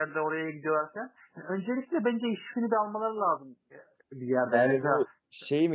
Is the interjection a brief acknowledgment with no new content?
No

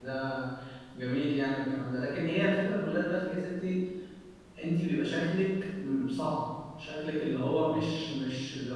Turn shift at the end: No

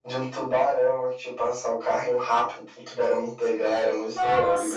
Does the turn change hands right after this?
Yes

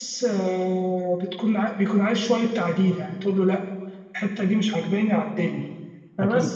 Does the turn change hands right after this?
No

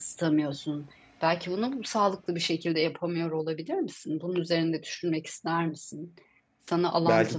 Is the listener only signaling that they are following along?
No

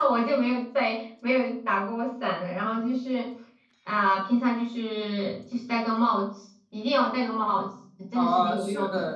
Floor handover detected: Yes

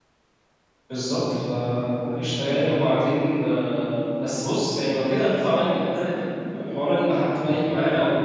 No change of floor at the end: Yes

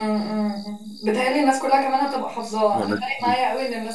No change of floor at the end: Yes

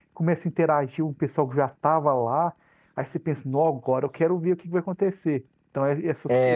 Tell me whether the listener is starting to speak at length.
No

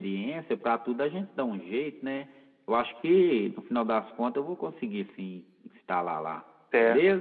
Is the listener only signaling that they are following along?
No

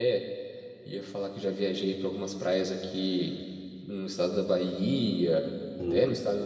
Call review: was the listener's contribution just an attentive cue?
Yes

